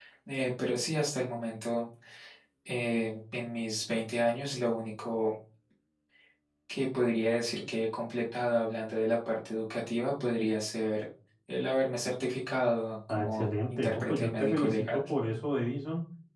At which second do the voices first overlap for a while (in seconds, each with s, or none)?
13.1 s